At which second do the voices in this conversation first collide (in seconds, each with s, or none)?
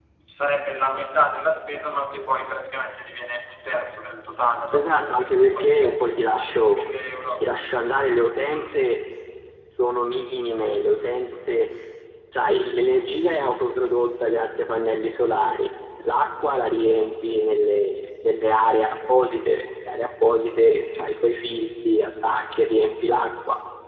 4.7 s